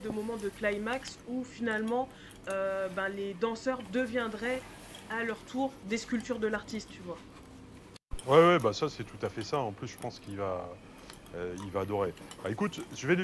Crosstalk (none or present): none